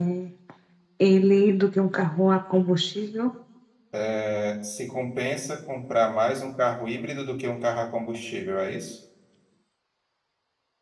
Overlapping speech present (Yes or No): No